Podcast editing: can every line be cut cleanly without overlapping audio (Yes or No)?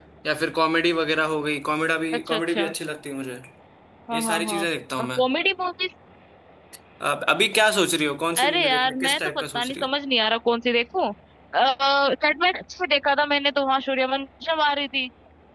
No